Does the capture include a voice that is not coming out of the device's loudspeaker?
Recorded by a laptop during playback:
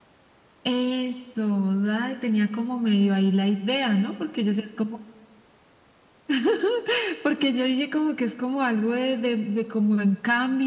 No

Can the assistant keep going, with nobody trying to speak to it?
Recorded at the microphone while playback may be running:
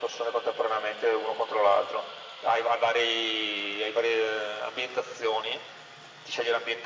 Yes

